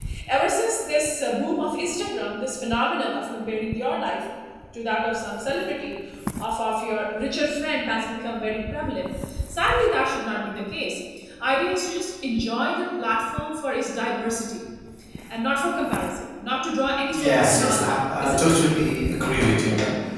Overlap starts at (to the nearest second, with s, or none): 17 s